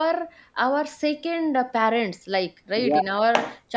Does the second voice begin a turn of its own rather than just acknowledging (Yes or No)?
No